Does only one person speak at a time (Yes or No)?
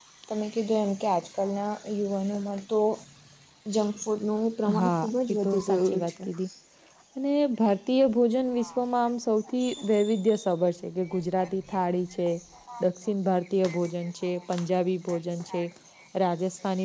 No